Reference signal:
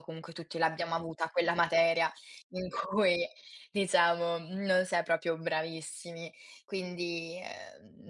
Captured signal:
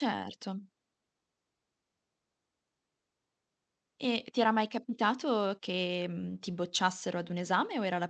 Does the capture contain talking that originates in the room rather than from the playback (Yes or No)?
Yes